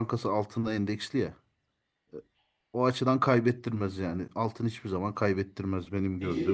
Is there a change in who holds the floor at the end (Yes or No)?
Yes